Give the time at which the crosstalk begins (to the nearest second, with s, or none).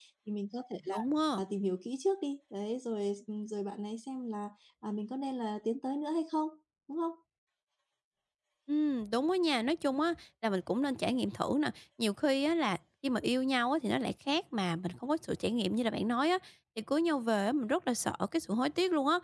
none